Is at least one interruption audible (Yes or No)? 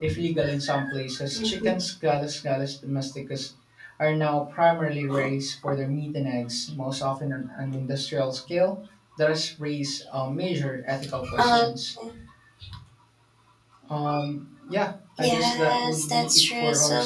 Yes